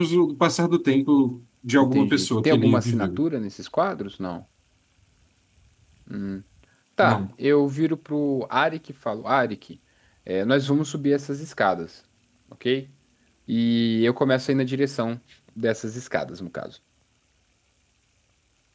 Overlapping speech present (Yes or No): Yes